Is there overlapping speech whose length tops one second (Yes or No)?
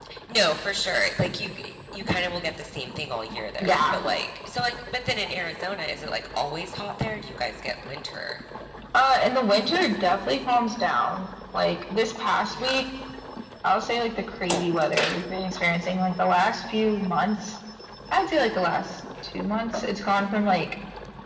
No